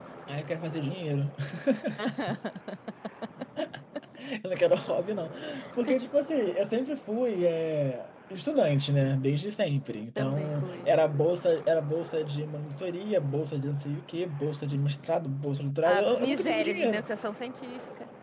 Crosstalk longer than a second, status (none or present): present